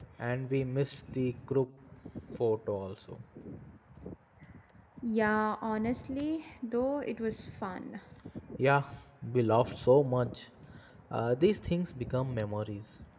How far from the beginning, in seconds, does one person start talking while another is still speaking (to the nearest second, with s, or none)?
none